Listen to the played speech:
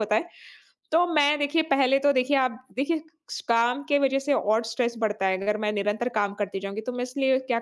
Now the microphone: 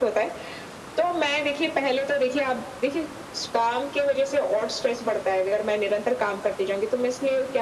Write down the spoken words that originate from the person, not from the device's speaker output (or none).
none